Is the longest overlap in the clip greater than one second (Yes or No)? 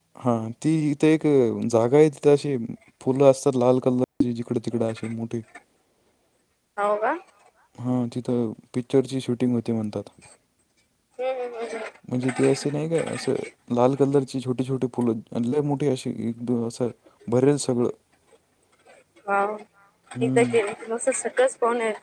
No